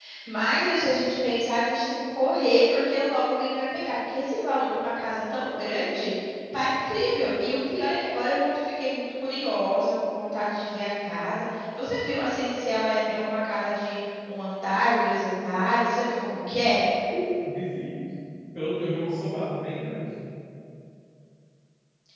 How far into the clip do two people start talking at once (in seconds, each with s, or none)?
none